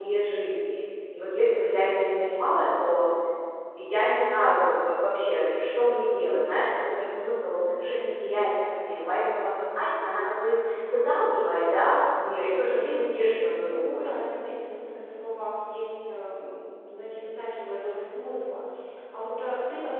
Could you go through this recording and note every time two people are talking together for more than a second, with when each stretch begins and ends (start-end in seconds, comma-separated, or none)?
none